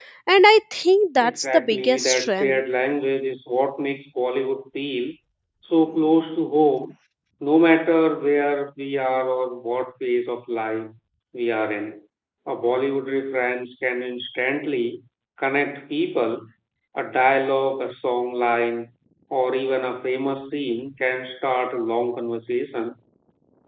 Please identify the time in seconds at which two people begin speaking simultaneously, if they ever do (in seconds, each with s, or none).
1.2 s